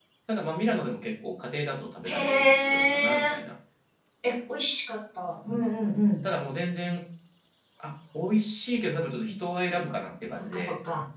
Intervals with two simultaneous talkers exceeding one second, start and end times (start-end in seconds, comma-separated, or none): 2.0-3.4